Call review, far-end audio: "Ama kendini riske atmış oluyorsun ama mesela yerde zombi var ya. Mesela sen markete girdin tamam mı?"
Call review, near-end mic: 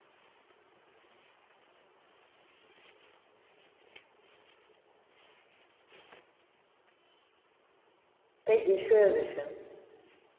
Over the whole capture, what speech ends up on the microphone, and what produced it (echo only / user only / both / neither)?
user only